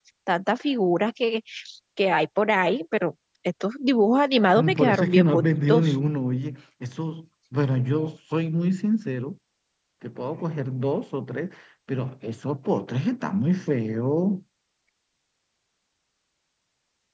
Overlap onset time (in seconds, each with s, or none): 4.5 s